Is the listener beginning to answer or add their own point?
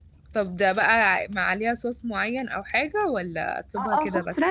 Yes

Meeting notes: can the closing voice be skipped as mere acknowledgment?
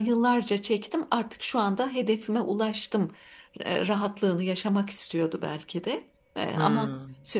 Yes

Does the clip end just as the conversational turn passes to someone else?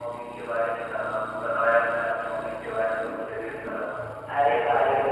Yes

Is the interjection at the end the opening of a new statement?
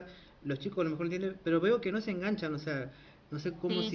Yes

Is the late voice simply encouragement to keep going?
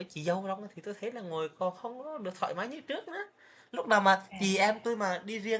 Yes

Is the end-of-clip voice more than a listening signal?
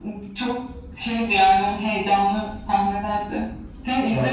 No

